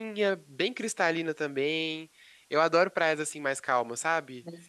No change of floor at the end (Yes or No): Yes